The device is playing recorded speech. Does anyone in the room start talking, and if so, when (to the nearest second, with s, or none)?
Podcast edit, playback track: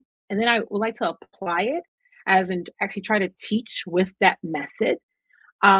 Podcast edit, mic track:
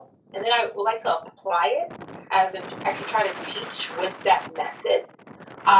none